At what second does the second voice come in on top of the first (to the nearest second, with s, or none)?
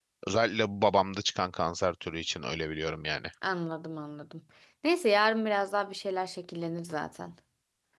none